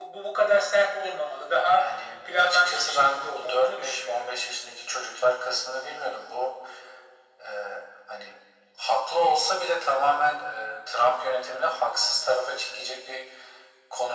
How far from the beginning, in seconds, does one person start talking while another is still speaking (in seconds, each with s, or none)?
2.2 s